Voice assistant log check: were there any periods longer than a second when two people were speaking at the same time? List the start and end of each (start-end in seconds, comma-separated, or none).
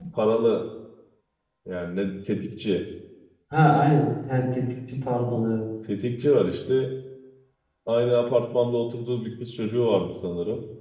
none